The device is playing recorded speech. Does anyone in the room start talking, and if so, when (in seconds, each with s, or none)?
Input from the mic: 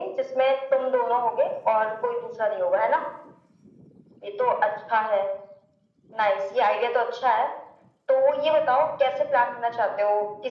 none